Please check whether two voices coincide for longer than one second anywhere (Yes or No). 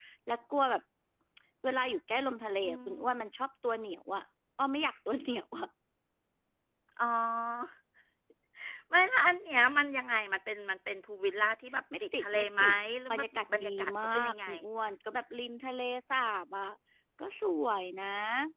Yes